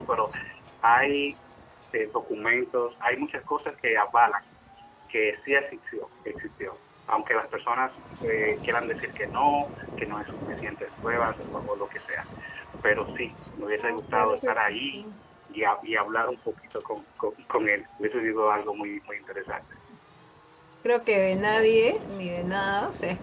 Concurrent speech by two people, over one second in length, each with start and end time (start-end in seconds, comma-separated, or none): 13.8-15.1